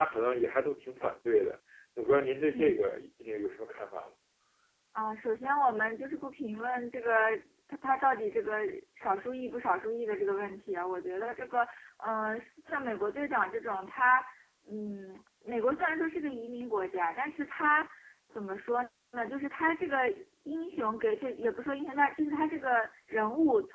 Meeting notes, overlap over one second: none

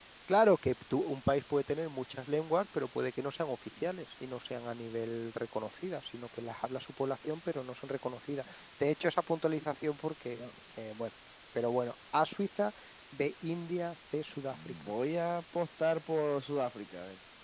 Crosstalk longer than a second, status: none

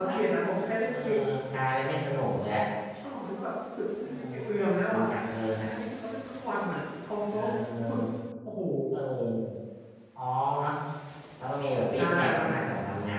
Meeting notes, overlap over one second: none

